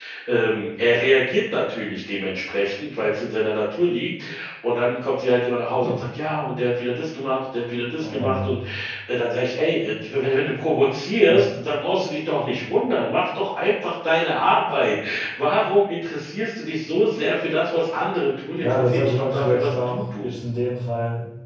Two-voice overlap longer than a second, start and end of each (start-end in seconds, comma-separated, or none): 18.6-20.3